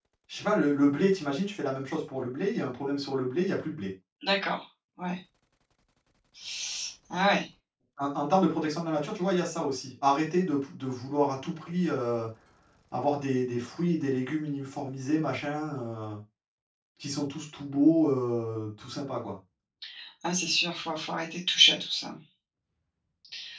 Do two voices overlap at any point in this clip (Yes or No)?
No